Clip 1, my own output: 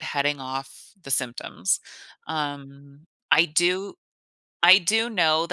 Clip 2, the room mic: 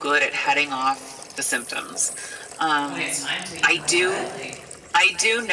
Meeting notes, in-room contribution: present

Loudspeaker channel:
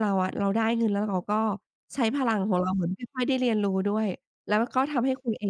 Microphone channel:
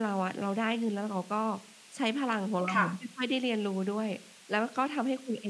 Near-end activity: present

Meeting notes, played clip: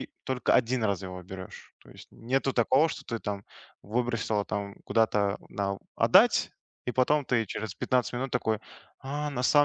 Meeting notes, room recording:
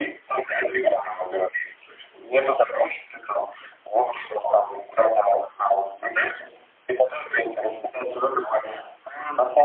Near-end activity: none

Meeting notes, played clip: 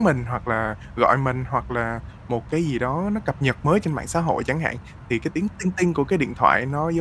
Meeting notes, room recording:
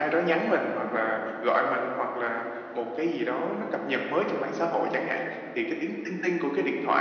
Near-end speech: none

